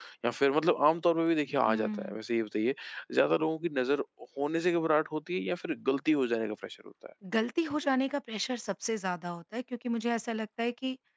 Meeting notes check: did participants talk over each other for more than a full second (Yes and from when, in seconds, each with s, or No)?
No